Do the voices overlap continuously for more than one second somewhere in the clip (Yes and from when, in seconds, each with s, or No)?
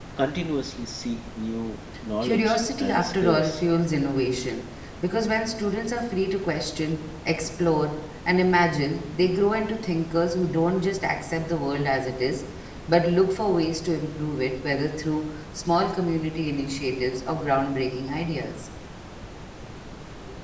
Yes, from 2.2 s